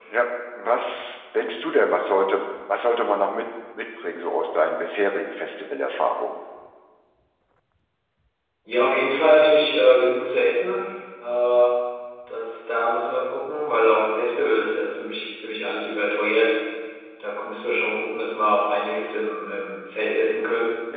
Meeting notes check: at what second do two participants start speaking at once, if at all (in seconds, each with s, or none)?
none